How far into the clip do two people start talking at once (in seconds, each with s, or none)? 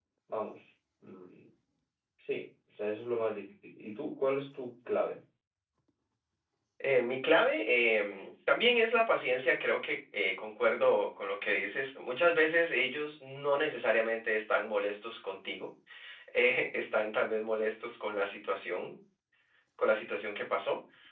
none